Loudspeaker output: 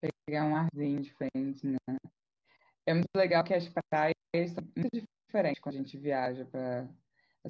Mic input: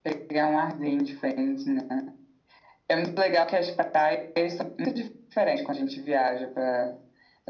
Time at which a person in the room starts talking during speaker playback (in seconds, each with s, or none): none